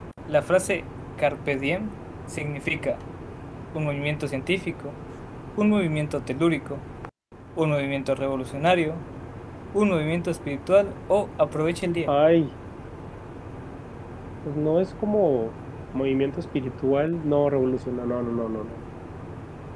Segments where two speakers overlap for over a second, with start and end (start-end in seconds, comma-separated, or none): none